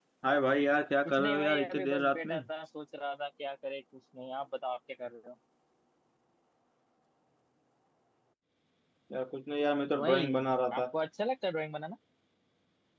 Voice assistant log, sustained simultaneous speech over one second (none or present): present